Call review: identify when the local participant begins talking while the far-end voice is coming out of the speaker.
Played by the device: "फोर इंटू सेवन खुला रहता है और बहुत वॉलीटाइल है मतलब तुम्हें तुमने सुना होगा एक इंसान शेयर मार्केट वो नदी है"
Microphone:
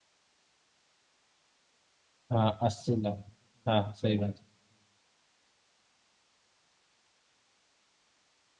2.3 s

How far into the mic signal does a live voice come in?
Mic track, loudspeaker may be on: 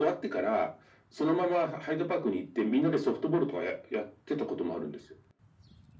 none

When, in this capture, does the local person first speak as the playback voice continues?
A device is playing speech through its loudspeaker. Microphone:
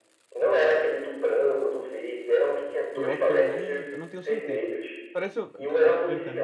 2.9 s

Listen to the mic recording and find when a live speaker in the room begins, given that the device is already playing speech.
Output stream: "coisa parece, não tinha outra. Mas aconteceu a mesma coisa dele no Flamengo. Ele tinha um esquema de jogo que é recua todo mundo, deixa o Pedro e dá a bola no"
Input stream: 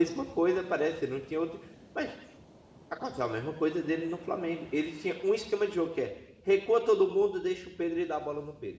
none

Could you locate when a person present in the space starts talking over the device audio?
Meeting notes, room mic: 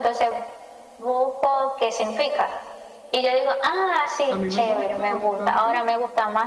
4.3 s

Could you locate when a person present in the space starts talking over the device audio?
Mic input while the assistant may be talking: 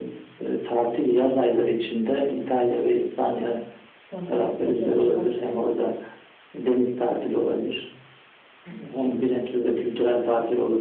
4.0 s

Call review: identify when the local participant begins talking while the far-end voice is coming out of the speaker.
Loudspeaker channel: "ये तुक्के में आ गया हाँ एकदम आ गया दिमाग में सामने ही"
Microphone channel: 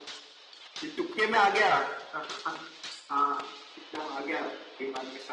none

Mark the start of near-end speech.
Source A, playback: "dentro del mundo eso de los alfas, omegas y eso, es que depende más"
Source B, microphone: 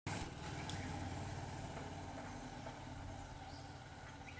none

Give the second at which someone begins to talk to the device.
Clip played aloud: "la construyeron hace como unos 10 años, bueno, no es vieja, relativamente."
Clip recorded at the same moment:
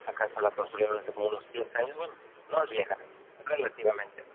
none

